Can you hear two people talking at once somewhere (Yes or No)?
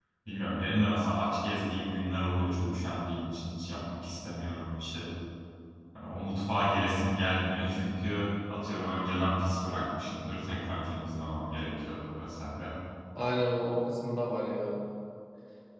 No